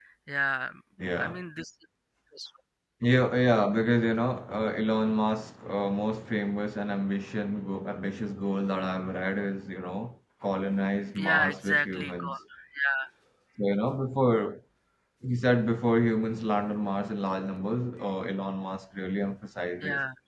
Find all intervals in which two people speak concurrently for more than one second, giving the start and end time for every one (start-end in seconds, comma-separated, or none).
11.2-12.3